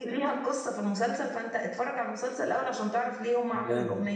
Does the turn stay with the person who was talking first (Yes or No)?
No